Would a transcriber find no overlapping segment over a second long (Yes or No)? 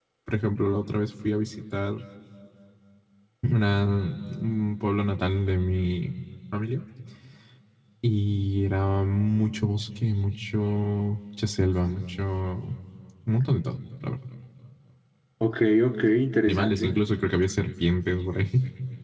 Yes